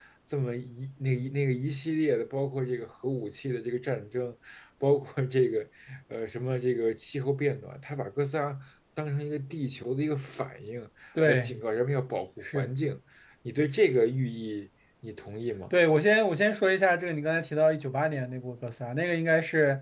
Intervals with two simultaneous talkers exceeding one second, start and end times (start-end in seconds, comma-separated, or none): none